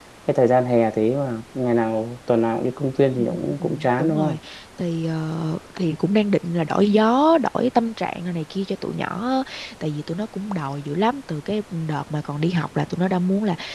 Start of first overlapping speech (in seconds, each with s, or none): 3.2 s